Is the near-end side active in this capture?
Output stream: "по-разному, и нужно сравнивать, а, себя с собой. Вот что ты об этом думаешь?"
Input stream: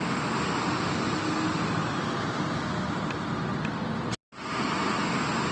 No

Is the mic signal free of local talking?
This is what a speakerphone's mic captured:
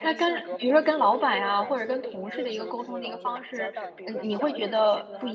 No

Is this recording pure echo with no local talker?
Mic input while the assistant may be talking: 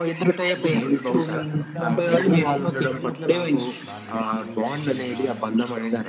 No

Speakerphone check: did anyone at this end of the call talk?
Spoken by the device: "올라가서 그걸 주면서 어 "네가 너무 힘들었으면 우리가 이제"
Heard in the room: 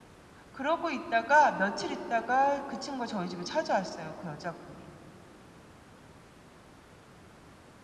Yes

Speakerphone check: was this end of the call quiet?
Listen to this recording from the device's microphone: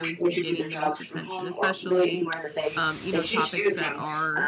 No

